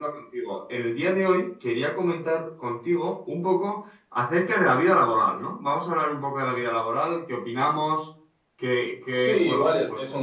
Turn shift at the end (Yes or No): Yes